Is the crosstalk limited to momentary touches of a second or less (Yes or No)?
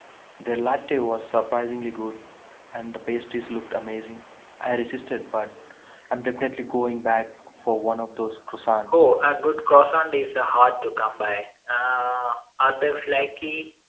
Yes